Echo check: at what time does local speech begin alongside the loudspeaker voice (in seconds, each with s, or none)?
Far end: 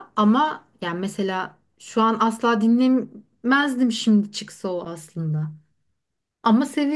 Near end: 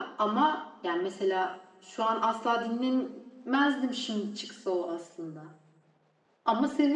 none